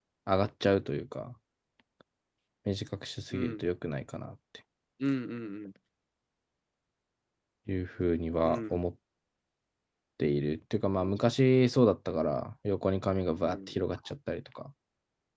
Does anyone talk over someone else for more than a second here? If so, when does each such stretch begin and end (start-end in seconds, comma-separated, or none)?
none